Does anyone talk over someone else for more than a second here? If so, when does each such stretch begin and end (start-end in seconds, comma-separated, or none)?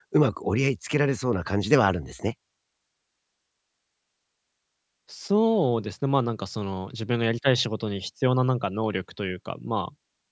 none